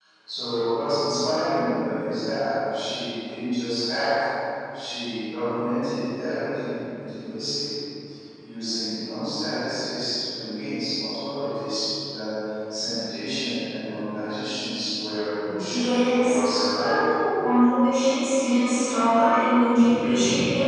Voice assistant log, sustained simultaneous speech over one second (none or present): present